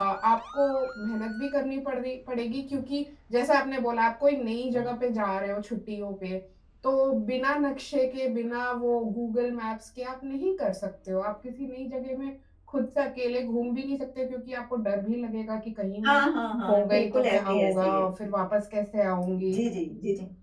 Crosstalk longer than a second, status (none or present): present